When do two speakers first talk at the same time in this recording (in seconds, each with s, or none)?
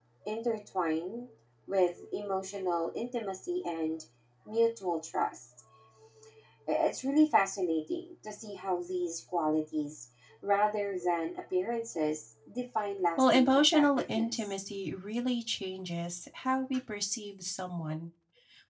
13.2 s